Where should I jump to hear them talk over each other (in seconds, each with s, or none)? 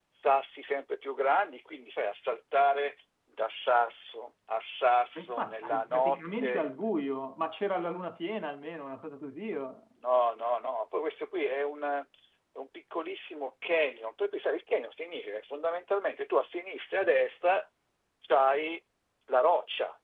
5.2 s